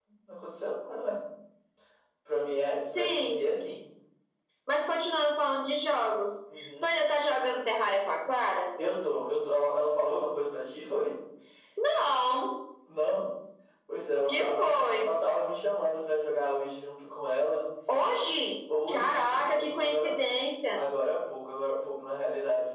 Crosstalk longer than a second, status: present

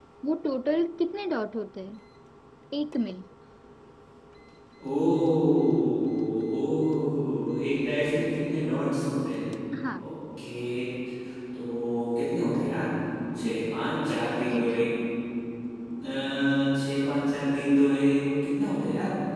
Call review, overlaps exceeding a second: present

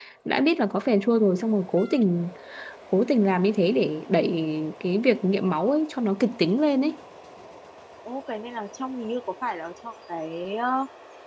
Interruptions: none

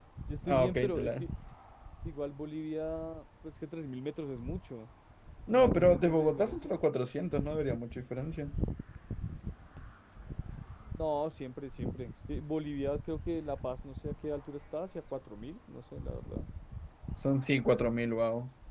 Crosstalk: present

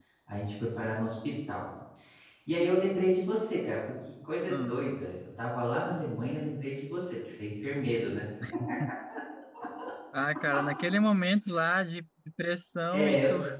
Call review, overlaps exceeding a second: none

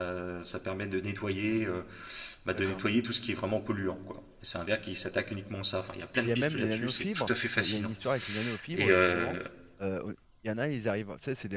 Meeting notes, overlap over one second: present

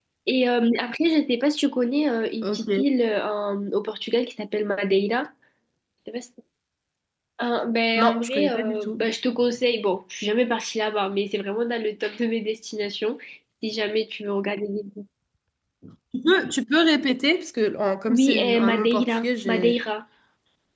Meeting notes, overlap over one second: present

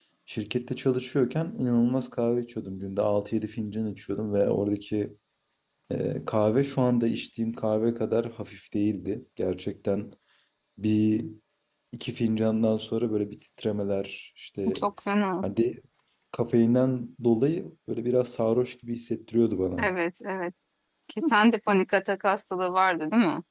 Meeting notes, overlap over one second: none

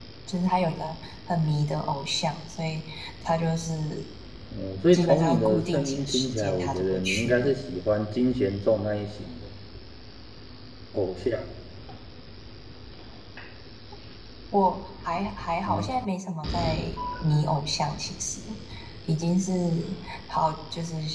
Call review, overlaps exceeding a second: present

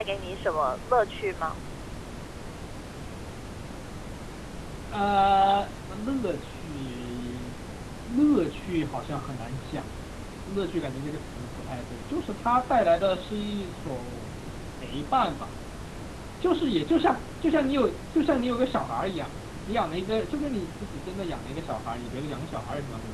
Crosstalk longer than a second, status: none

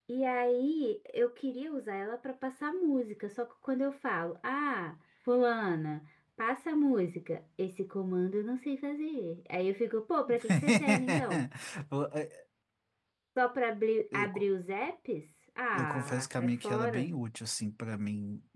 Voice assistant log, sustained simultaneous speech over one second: present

